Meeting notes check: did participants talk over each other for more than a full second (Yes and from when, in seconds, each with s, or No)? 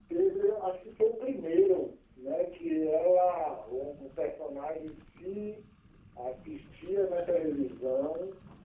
No